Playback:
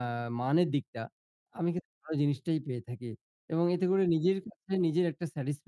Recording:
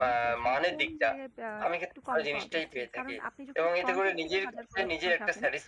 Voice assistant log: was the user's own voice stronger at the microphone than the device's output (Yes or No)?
No